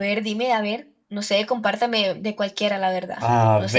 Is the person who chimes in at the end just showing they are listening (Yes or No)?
No